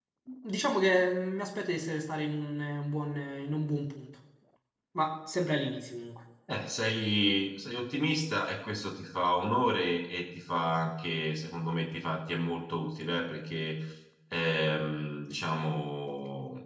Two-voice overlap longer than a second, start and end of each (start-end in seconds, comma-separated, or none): none